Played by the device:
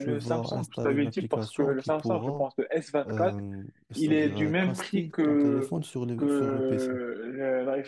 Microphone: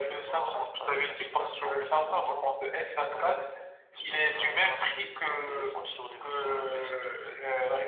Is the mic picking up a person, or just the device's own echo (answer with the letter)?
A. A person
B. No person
B